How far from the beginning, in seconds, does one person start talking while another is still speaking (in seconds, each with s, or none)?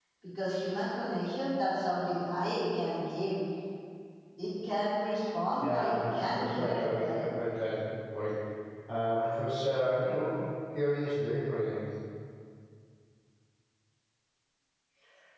5.6 s